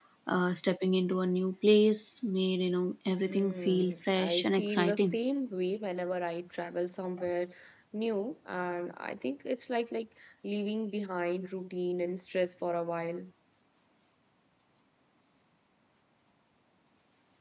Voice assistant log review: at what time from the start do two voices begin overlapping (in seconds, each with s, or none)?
3.2 s